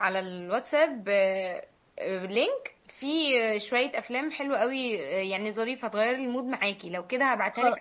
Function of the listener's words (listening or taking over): listening